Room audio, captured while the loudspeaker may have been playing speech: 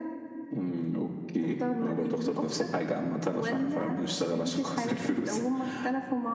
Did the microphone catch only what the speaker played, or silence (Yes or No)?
Yes